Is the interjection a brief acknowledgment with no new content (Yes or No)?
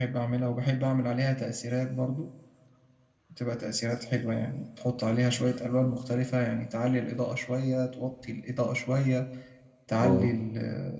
Yes